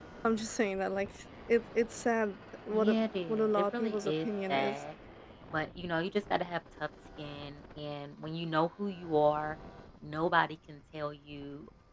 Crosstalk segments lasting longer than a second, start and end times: 2.7-4.8

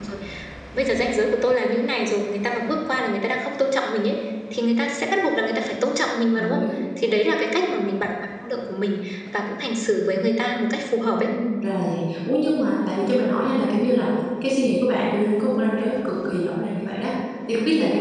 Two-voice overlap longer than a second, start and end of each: none

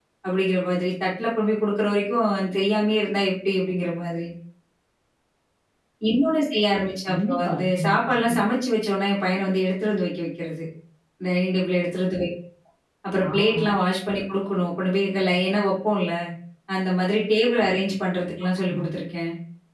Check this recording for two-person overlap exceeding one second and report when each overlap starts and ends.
7.1-8.4

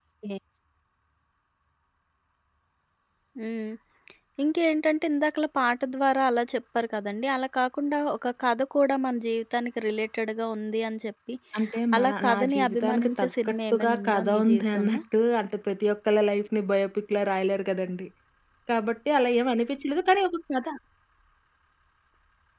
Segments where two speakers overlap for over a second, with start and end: 12.0-15.0

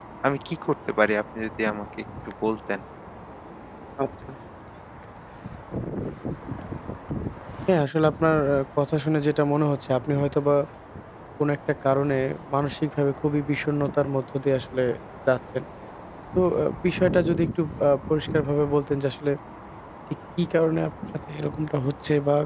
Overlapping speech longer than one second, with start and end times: none

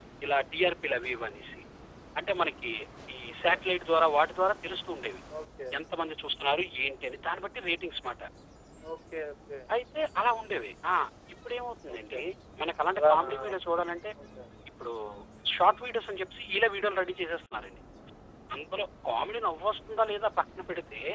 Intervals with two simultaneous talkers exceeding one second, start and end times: none

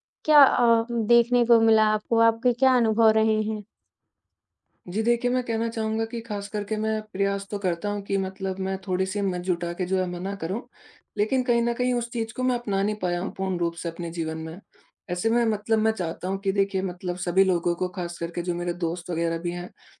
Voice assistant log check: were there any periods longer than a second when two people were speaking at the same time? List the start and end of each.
none

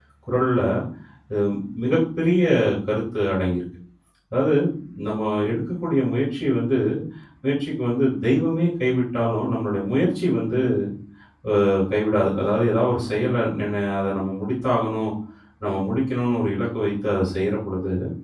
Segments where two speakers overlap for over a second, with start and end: none

